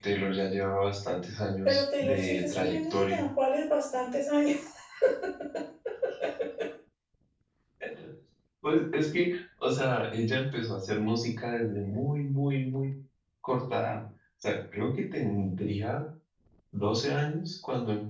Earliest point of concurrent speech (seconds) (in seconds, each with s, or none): 1.6 s